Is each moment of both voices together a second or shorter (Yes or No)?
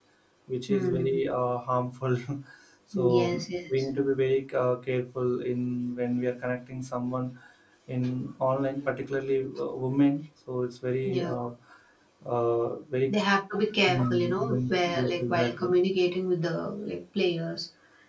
No